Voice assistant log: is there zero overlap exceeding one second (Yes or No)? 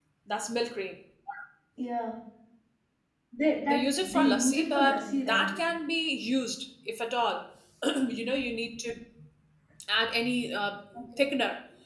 No